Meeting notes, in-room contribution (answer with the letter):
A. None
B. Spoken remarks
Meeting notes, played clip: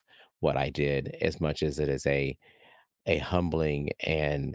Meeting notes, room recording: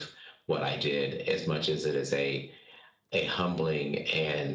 A